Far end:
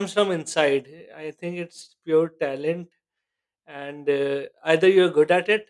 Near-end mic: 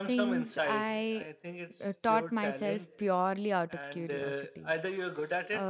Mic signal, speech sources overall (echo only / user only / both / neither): both